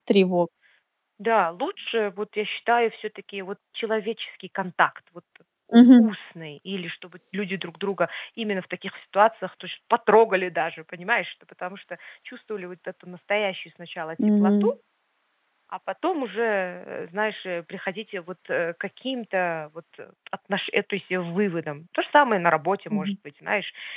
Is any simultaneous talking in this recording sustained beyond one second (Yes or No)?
No